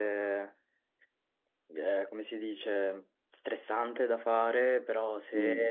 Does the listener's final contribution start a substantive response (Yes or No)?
No